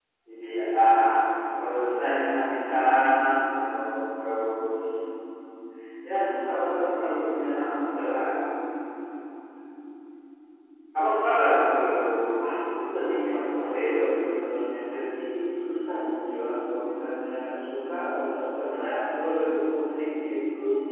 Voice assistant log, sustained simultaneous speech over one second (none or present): present